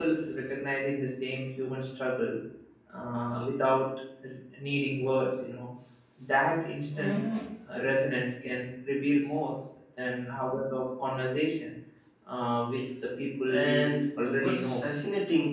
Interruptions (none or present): present